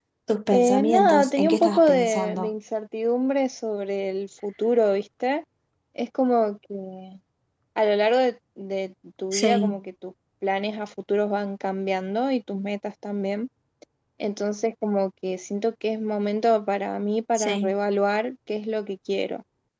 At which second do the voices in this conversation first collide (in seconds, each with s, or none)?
0.5 s